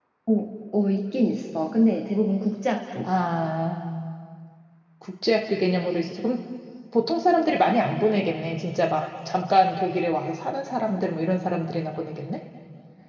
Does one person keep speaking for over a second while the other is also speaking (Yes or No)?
No